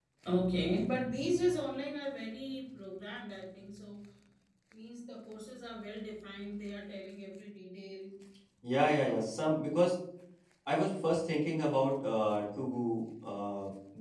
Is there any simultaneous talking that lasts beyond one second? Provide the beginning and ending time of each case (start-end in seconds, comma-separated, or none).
none